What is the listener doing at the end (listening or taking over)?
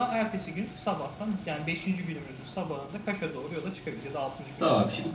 taking over